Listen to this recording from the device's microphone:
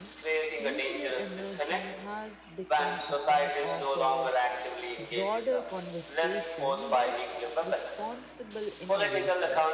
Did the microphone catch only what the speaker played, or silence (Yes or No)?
No